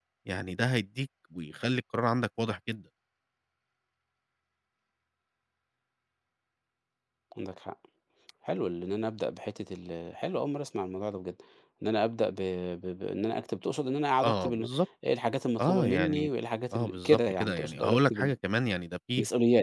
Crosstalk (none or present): present